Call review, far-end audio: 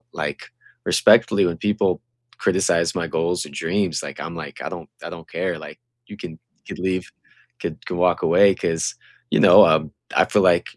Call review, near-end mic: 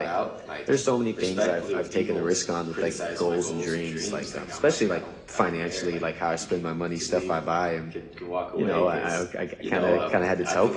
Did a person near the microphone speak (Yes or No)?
Yes